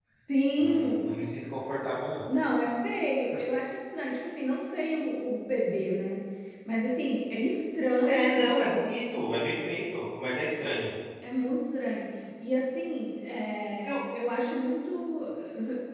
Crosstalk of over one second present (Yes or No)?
No